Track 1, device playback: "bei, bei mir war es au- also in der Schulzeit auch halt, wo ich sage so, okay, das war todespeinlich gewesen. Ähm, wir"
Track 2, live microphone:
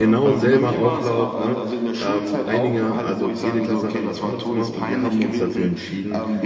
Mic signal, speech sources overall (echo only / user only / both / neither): both